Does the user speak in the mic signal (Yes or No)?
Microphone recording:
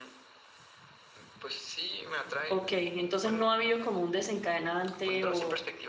Yes